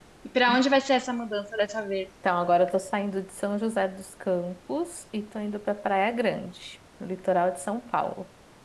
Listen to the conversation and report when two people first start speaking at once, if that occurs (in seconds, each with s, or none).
none